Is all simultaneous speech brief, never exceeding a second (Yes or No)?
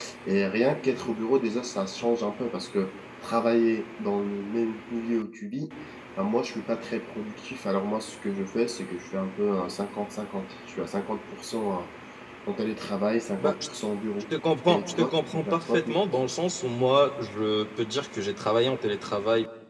No